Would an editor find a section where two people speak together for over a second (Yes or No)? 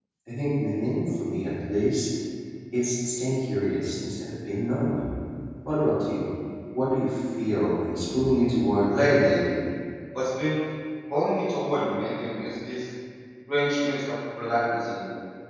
No